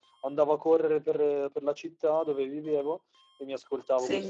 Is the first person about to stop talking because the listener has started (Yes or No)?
No